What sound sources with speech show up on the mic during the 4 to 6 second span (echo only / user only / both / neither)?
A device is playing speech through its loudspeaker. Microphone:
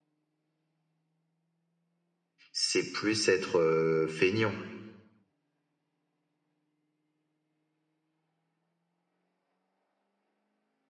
user only